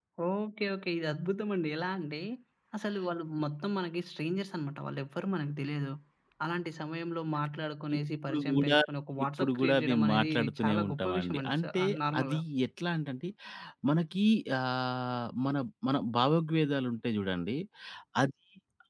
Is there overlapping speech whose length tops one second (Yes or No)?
Yes